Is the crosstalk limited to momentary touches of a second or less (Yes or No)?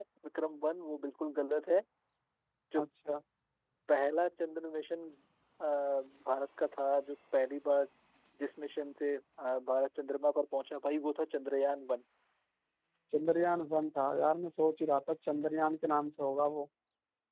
Yes